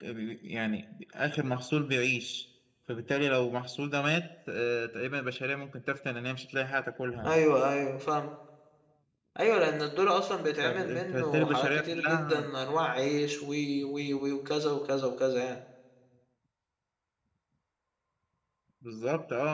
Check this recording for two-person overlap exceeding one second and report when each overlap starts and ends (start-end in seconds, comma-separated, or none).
10.6-12.4